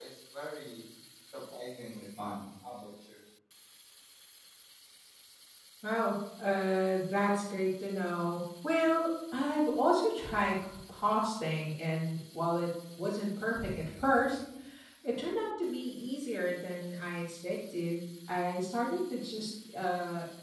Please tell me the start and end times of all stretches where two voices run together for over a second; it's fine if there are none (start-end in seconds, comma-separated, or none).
none